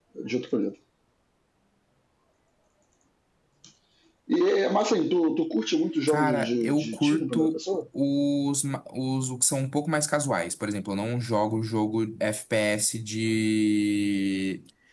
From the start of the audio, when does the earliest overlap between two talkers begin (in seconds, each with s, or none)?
6.1 s